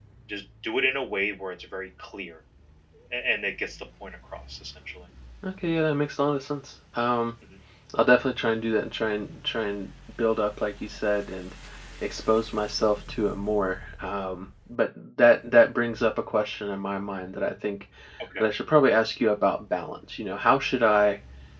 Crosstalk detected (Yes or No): No